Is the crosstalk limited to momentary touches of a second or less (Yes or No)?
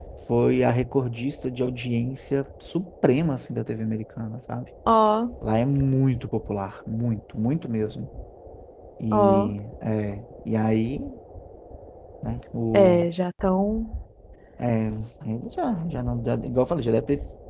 Yes